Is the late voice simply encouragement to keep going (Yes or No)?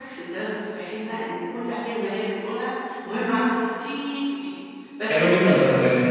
No